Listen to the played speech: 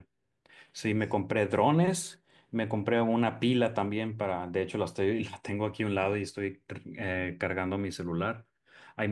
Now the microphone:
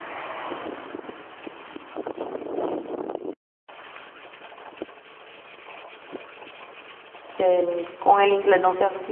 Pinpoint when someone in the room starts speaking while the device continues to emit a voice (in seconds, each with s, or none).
7.3 s